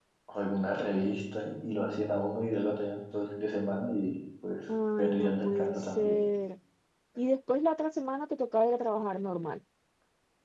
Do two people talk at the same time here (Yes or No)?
Yes